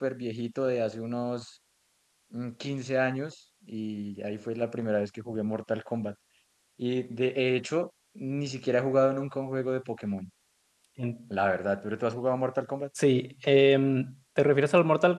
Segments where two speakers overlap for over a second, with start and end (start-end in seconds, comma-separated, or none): none